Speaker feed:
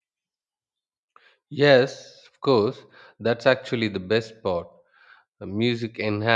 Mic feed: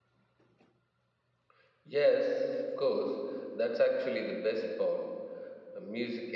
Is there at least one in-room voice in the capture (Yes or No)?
No